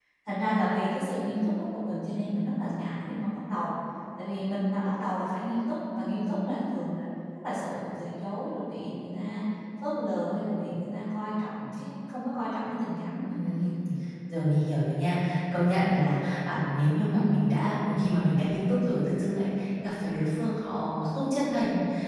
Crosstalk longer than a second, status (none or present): none